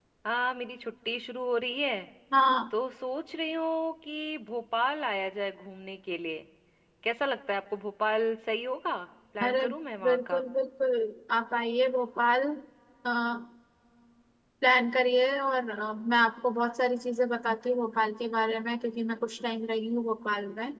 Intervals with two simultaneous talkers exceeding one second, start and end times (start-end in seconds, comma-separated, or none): none